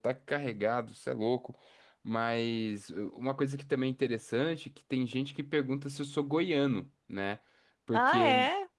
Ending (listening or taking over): listening